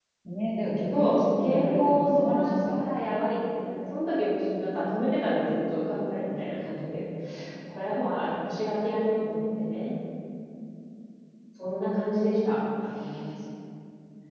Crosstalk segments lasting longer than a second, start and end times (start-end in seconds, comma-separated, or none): 0.9-2.8